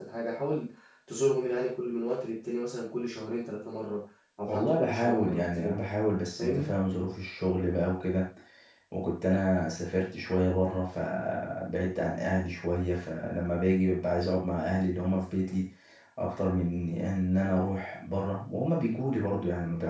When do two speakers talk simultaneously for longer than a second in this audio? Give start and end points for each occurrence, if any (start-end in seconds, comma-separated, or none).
4.5-5.8